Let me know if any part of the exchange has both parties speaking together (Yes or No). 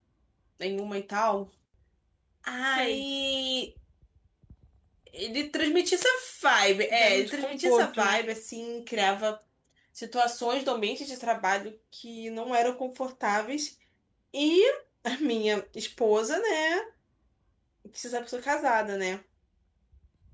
Yes